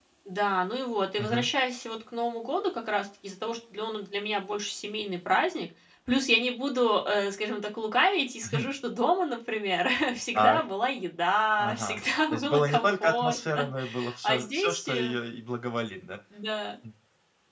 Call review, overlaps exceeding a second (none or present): present